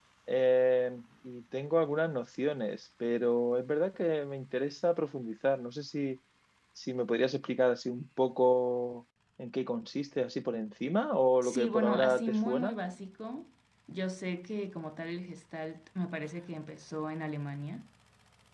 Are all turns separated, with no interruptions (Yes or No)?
No